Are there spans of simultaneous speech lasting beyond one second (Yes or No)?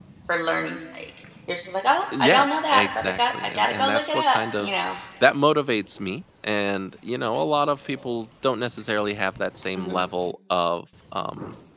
Yes